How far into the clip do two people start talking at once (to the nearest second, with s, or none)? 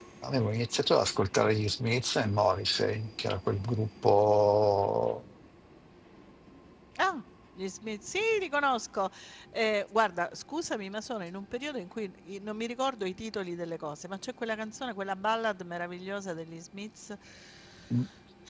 none